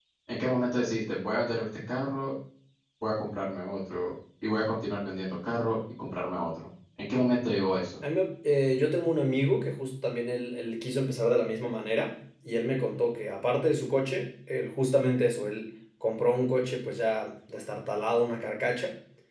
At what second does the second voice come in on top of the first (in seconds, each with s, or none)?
none